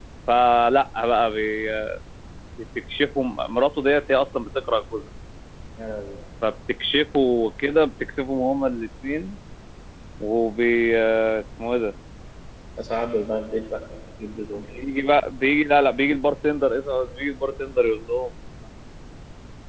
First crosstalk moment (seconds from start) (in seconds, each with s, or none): none